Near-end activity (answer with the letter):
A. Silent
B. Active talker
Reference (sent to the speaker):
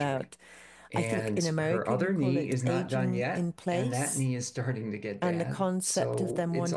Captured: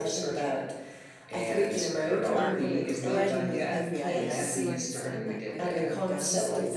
B